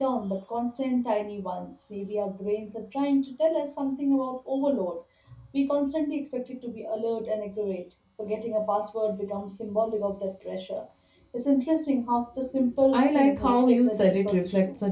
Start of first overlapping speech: 13 s

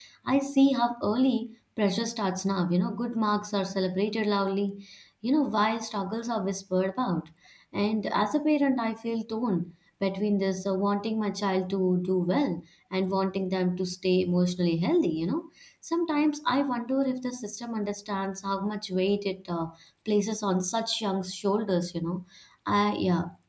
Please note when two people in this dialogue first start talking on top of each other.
none

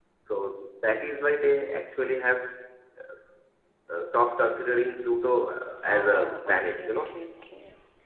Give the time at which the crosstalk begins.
6 s

